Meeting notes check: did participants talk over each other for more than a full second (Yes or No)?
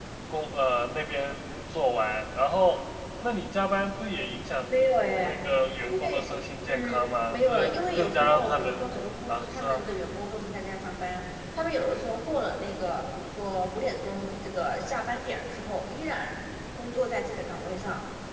Yes